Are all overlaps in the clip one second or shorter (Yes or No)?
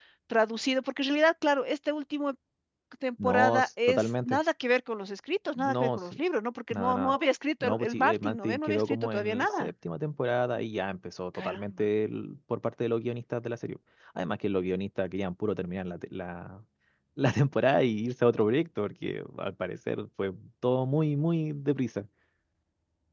No